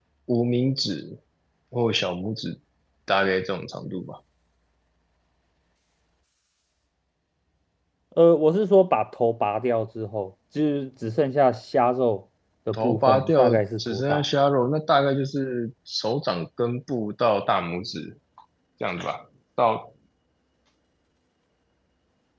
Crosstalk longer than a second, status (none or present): present